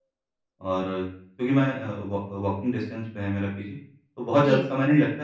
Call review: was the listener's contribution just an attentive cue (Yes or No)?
Yes